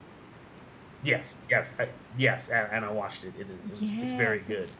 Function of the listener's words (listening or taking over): taking over